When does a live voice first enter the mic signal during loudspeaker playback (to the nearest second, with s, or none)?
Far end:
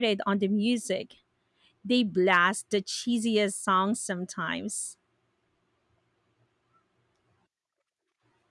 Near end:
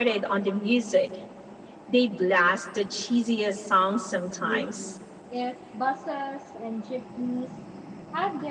4 s